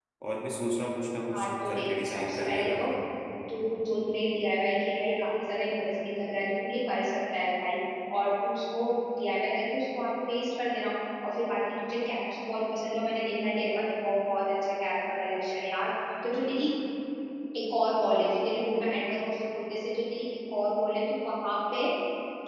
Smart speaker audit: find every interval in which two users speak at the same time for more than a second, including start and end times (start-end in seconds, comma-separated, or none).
1.3-2.7